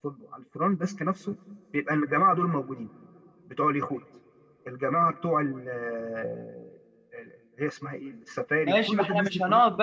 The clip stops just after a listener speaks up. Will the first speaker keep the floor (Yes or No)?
No